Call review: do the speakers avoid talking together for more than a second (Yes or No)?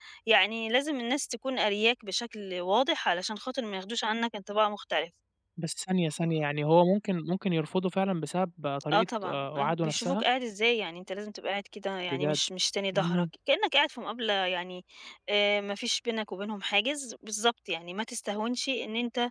No